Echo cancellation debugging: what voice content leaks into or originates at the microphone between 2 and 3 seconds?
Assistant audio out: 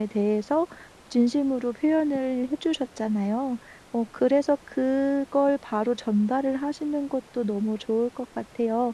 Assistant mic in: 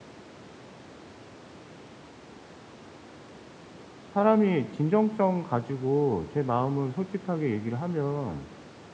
neither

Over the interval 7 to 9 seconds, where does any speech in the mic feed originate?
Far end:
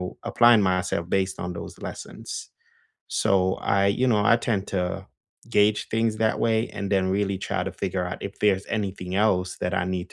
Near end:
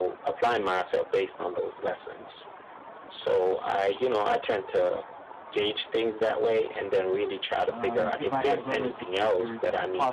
both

